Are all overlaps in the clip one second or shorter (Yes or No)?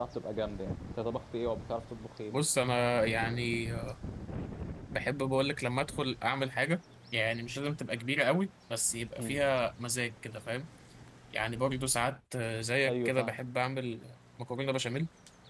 Yes